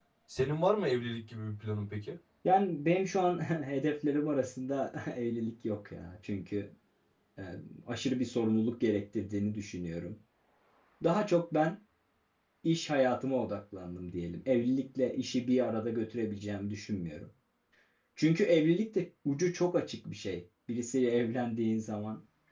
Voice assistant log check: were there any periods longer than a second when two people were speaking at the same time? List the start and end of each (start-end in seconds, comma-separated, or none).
none